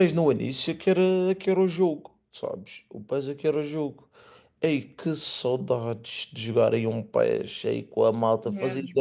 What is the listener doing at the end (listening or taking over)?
listening